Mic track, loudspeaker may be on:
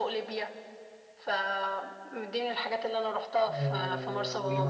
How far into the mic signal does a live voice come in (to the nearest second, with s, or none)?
4 s